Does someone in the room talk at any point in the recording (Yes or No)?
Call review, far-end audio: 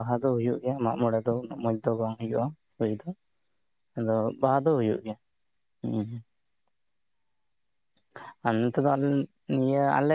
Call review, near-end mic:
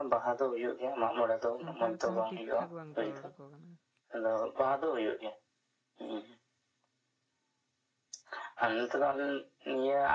Yes